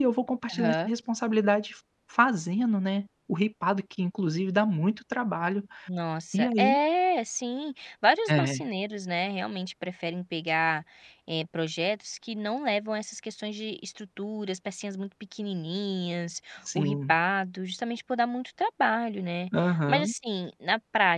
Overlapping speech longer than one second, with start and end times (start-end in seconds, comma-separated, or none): none